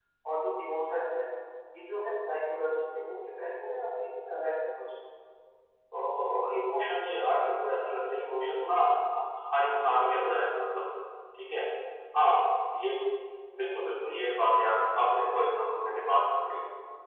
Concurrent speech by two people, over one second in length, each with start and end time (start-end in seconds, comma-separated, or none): none